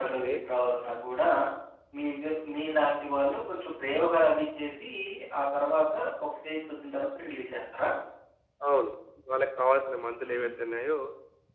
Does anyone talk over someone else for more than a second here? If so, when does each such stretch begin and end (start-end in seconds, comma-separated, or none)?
none